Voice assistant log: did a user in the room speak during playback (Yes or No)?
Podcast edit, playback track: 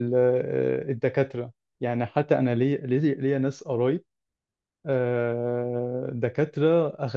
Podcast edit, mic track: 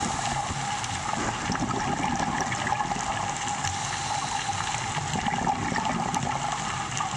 No